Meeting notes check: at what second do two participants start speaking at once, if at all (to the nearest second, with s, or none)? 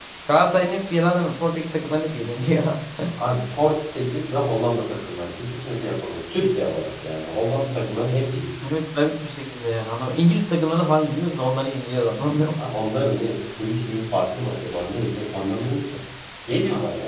none